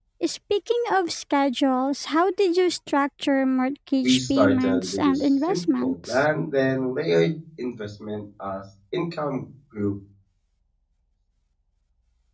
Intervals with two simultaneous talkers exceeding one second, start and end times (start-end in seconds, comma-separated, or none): 4.0-6.2